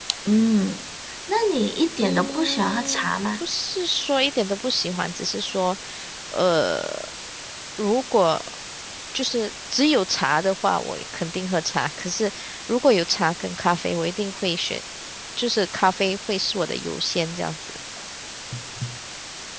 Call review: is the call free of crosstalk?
No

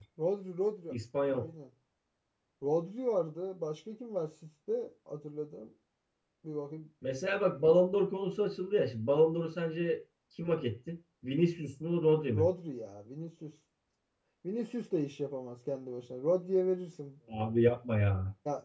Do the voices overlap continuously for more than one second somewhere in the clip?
No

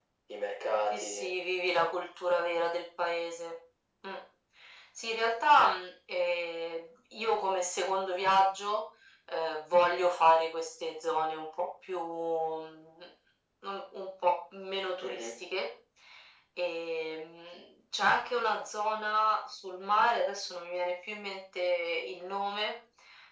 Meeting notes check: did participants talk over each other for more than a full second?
No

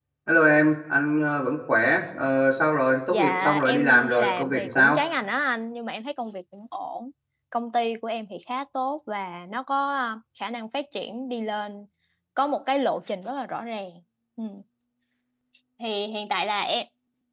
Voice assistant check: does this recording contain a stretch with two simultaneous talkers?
Yes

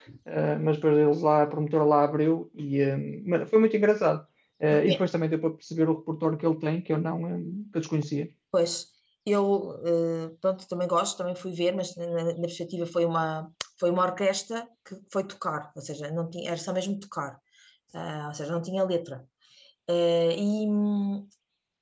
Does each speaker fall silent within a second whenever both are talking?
Yes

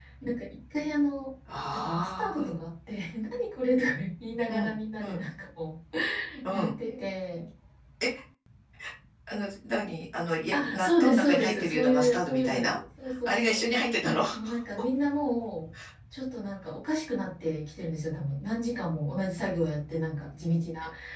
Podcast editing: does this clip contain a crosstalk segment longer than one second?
Yes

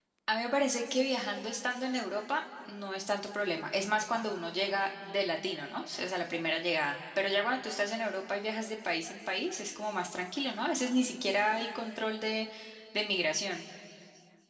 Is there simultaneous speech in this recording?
No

